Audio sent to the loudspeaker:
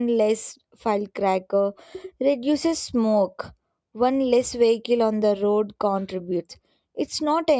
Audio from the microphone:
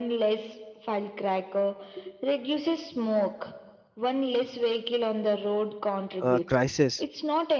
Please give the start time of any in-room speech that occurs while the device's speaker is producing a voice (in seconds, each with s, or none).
6.2 s